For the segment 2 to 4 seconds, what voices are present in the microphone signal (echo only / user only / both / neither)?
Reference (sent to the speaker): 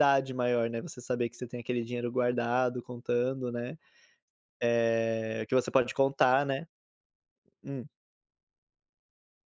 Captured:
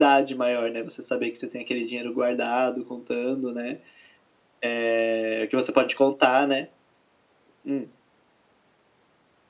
echo only